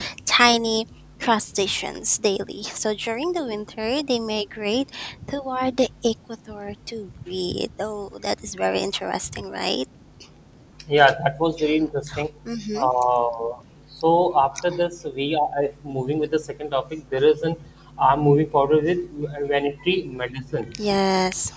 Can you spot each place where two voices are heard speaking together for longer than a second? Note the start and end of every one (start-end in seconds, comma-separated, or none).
none